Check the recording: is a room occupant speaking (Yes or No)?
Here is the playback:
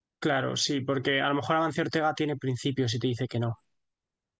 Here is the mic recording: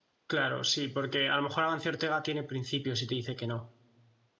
No